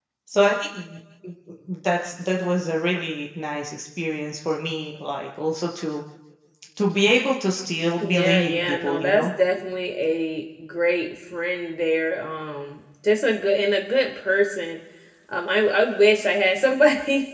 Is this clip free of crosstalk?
No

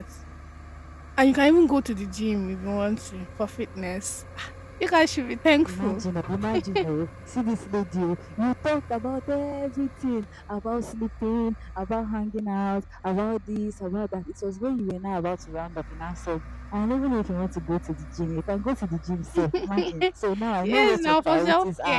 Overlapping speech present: Yes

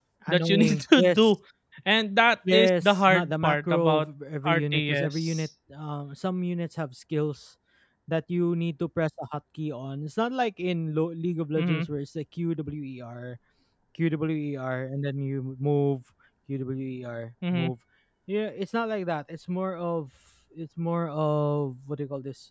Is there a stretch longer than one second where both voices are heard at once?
Yes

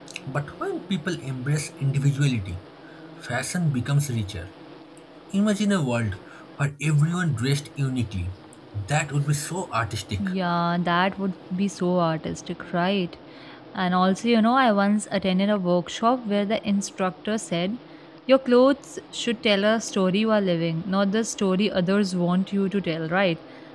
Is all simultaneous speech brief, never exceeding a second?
Yes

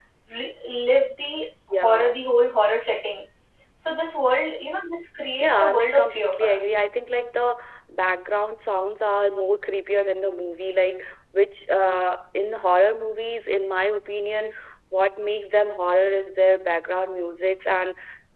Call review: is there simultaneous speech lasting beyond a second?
Yes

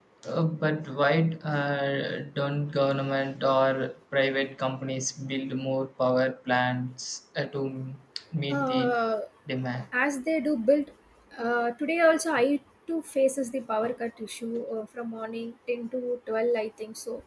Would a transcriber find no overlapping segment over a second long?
Yes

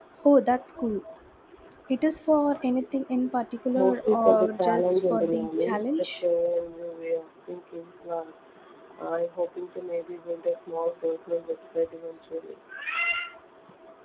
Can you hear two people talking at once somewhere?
Yes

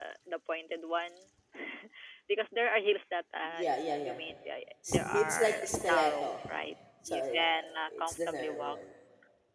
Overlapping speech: Yes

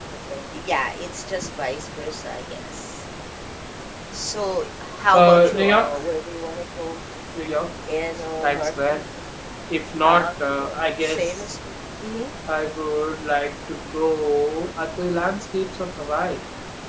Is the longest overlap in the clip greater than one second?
Yes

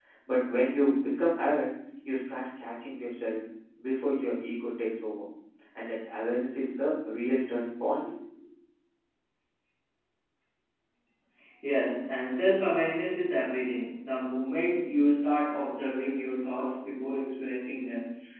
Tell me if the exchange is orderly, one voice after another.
Yes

